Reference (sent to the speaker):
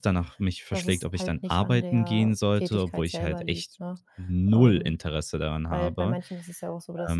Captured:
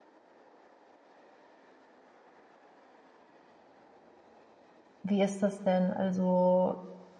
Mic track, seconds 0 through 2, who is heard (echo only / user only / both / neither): neither